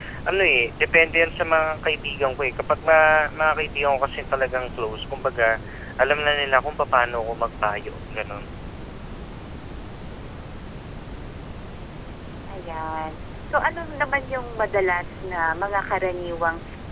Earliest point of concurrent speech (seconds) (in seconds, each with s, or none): none